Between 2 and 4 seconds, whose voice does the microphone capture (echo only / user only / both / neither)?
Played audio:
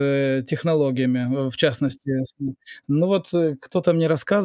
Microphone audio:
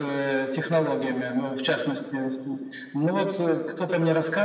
echo only